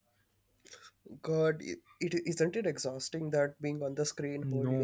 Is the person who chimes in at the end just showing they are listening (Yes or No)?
No